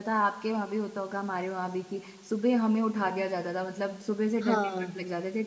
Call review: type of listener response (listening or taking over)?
listening